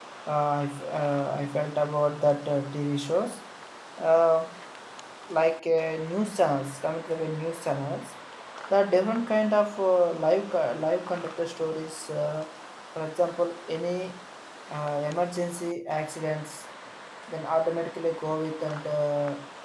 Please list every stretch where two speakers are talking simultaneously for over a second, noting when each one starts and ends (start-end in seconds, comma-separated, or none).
none